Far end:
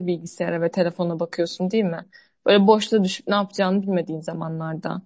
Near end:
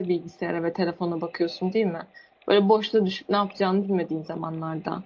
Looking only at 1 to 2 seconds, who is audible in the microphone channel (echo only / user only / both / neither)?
echo only